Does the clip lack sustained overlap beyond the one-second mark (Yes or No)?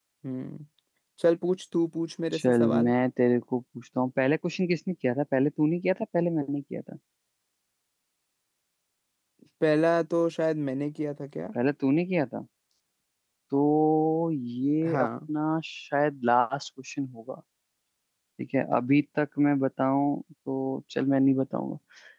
Yes